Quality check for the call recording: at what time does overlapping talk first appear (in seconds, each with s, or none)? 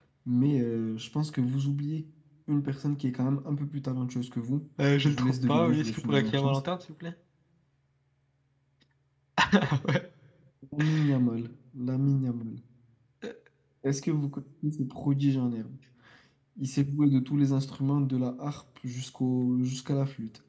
5.0 s